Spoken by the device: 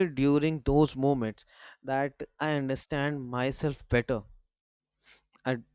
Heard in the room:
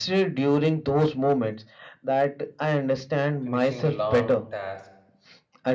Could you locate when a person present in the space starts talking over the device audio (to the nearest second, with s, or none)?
3 s